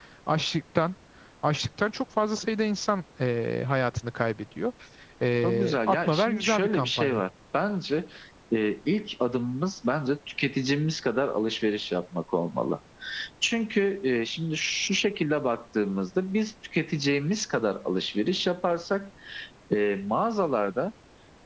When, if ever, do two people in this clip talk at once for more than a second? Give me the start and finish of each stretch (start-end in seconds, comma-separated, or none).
5.4-7.2